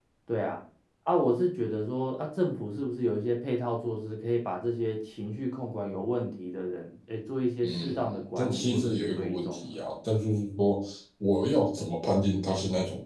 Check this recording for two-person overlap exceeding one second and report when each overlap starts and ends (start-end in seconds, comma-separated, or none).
7.6-9.7